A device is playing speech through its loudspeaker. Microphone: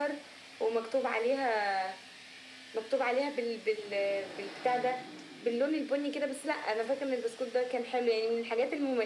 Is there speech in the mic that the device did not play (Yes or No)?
No